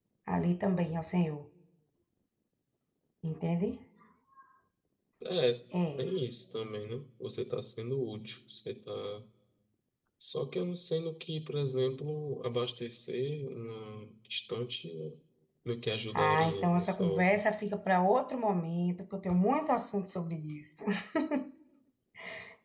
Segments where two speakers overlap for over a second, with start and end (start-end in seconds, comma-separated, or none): 16.1-17.4